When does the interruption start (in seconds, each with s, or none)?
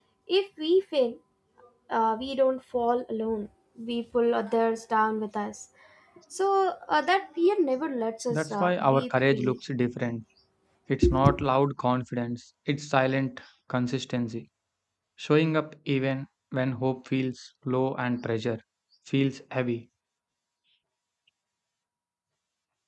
8.3 s